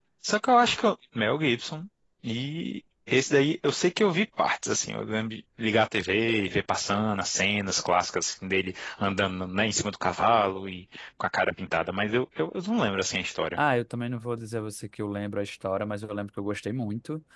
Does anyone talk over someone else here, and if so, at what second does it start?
none

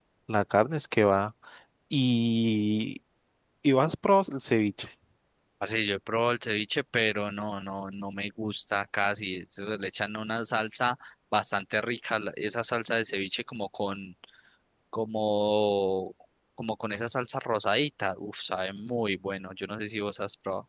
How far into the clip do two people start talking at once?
none

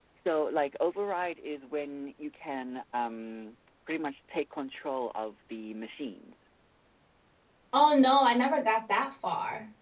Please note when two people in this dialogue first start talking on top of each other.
none

